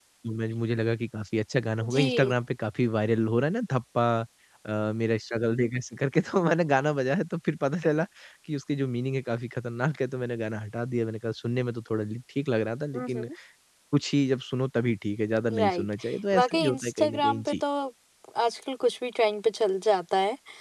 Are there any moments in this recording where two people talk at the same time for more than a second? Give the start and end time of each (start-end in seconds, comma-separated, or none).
16.3-17.5